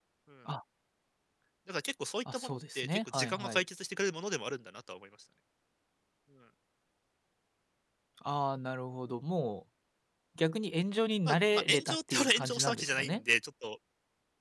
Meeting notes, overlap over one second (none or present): present